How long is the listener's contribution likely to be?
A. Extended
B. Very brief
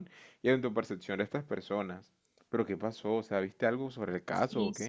A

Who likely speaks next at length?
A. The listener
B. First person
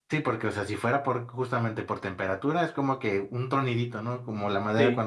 B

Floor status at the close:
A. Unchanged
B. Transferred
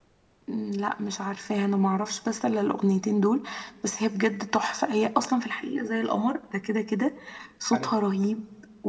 A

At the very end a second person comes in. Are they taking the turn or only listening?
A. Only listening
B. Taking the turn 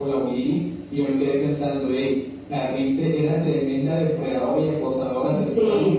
A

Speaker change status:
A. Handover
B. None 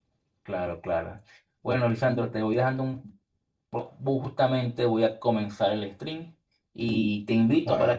B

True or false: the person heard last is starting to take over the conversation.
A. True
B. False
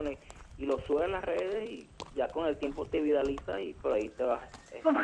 A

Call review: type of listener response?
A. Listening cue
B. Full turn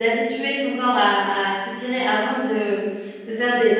A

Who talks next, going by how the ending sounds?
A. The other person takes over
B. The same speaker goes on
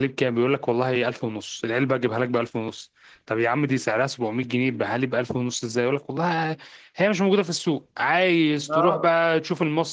B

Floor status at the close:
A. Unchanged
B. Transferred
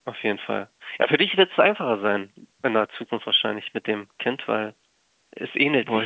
A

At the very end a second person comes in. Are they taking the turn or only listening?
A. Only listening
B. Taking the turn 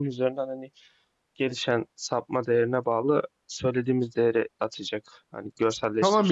B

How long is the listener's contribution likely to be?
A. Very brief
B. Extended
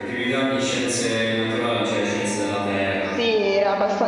B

